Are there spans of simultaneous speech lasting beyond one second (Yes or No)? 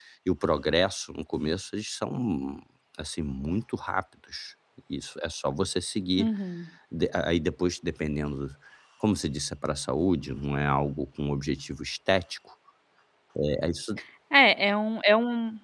No